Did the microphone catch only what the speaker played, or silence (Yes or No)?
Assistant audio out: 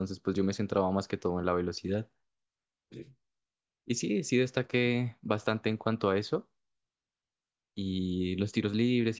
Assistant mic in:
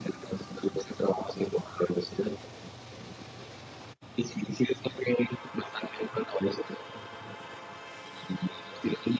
Yes